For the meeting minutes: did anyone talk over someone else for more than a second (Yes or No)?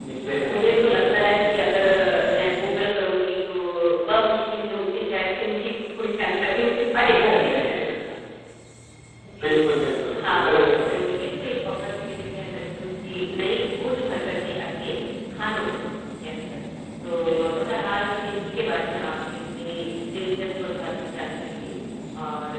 Yes